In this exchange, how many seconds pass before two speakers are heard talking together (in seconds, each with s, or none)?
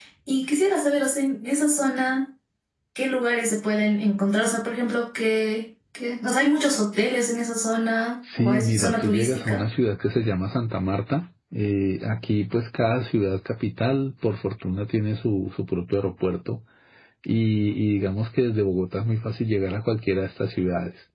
8.2 s